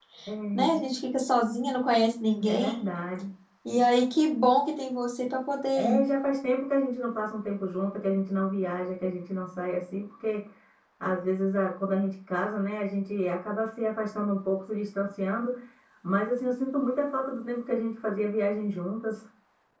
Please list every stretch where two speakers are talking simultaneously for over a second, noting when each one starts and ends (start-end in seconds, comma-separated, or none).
none